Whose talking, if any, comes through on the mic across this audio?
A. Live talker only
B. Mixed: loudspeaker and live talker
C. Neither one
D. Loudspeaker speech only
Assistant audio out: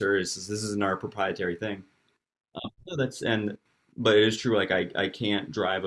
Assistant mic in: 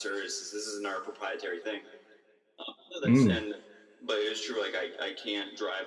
B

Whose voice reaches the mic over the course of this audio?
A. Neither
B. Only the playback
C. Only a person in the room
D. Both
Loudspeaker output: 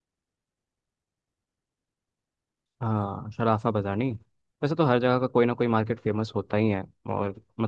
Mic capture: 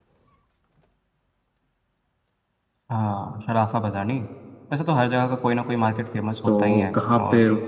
D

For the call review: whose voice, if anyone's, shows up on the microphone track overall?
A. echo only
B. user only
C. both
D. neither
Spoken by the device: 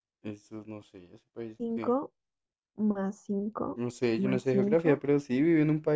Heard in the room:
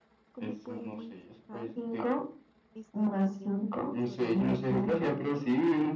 C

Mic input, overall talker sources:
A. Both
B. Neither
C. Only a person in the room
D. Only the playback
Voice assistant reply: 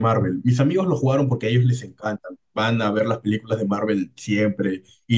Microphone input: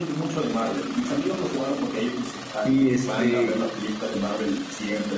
A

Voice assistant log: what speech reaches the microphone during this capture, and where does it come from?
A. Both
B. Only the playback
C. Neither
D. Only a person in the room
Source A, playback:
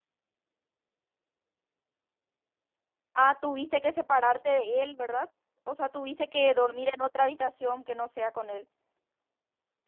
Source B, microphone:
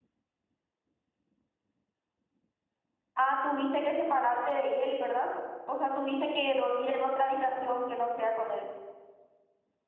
B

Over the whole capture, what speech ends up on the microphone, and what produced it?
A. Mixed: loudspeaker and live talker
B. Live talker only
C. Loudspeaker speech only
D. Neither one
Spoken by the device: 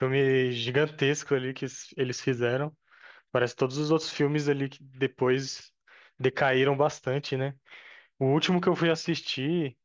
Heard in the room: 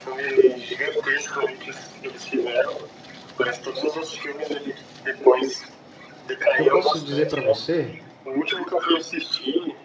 A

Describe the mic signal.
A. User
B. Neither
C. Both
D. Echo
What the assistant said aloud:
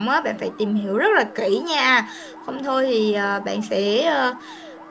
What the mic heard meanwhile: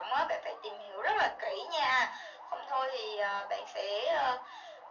D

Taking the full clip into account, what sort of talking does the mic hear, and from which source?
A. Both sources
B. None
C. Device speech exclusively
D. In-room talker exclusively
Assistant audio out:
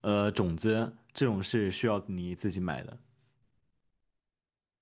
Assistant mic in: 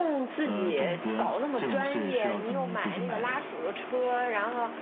A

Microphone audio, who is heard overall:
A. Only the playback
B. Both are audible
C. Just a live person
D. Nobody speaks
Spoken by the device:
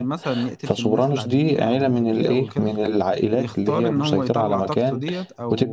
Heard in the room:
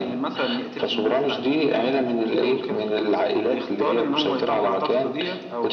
A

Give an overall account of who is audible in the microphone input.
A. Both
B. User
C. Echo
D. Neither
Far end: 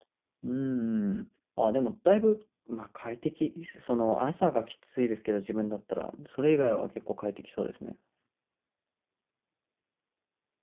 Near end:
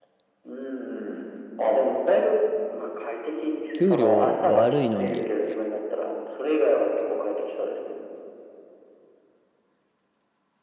A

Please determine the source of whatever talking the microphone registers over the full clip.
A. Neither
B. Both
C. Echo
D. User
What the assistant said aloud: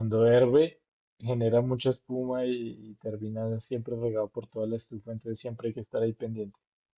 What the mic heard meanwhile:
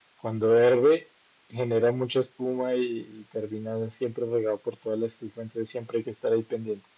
C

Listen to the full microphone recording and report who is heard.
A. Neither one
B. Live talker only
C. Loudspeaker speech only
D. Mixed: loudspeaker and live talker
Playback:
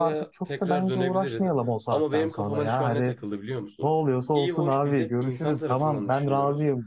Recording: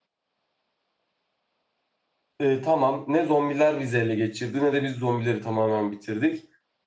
B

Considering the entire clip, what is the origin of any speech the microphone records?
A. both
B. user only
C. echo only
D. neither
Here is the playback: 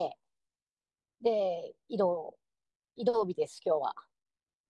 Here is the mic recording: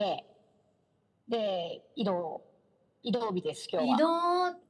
A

